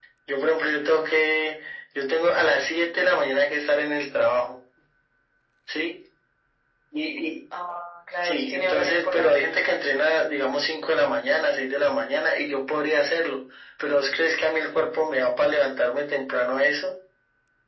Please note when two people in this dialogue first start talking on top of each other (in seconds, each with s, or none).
8.2 s